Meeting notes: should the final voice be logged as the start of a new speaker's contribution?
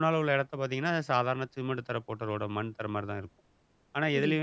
No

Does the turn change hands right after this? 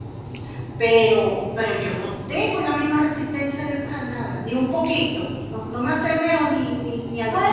Yes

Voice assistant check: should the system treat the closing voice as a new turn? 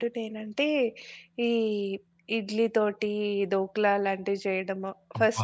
No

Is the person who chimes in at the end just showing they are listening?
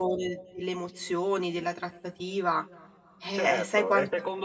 No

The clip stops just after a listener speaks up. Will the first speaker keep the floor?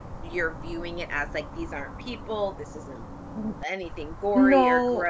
Yes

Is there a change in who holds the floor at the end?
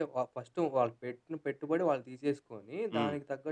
No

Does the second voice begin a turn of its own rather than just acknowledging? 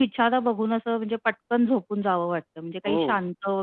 No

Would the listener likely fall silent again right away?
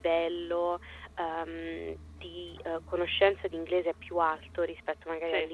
Yes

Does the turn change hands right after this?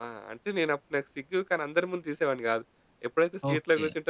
No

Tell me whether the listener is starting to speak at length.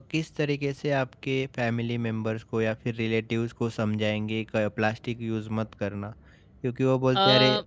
No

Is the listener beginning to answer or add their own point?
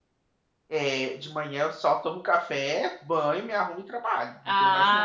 Yes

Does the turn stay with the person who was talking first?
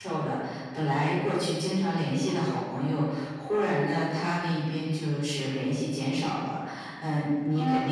Yes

